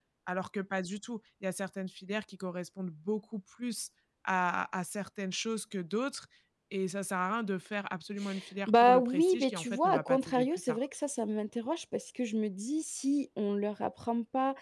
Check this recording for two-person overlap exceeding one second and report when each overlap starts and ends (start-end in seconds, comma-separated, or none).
8.7-10.8